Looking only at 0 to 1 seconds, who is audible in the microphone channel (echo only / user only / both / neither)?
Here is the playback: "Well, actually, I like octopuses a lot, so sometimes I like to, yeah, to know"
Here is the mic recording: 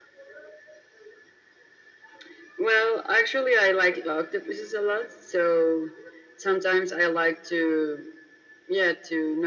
neither